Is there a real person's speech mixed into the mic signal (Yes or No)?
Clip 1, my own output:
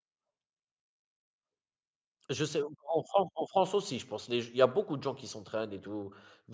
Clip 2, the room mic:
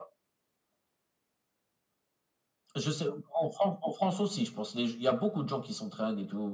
No